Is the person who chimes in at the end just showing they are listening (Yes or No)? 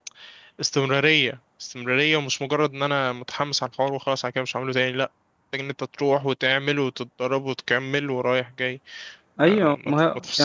No